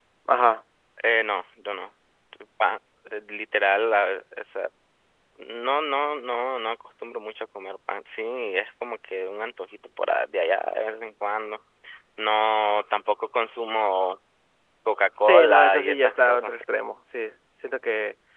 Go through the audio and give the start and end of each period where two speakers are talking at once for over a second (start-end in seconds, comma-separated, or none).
15.2-16.5